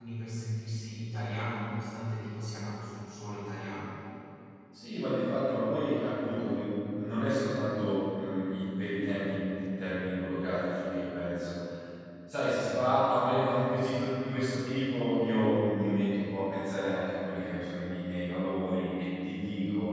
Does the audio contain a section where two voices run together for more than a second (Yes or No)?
No